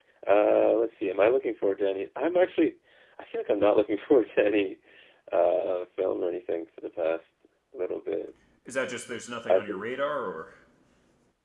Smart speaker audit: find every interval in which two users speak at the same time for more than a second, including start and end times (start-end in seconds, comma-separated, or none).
none